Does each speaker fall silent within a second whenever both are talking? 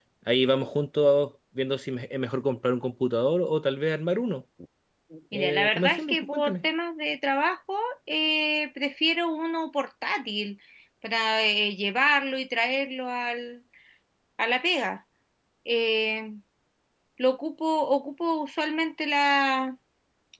No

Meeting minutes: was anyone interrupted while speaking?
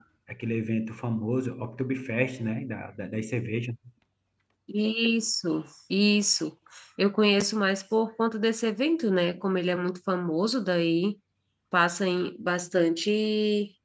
No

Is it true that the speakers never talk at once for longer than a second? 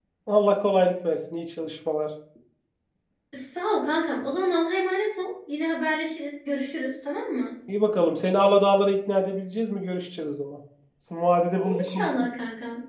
Yes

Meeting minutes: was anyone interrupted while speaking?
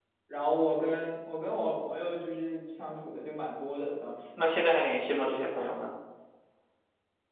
No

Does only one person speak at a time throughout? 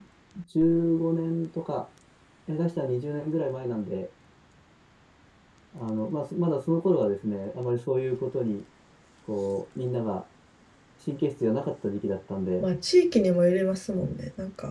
Yes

